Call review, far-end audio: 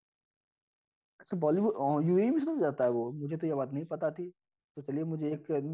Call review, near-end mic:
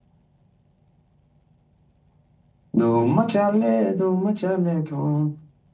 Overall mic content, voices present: user only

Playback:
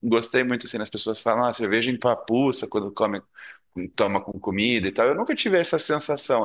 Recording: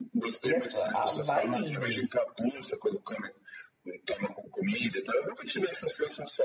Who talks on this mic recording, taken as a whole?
both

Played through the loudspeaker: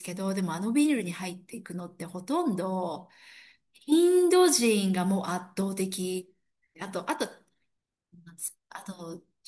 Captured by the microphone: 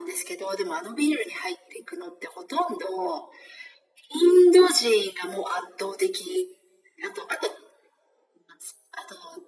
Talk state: echo only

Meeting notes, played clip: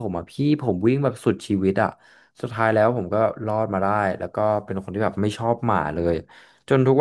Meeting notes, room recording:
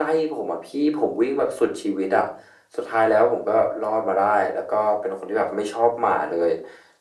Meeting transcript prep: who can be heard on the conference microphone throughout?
echo only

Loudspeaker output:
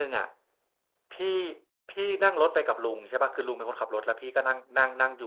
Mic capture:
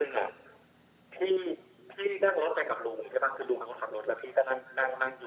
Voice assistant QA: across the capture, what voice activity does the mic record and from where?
echo only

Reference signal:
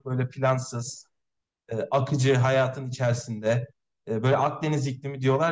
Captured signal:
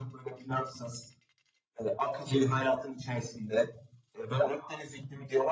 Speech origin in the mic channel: echo only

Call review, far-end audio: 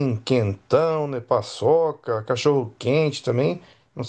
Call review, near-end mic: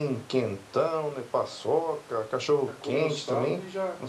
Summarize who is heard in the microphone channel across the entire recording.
both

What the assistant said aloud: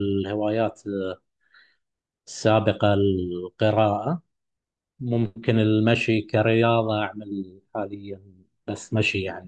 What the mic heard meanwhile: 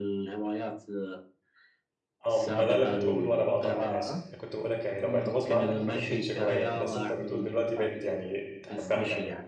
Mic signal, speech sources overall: both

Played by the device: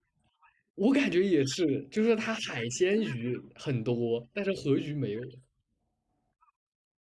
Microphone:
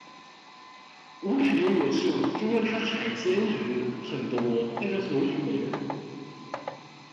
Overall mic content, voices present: echo only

